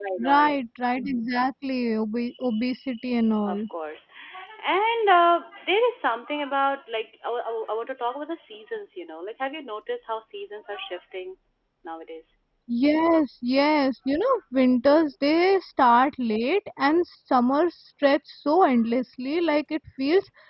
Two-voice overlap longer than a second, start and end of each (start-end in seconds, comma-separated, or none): none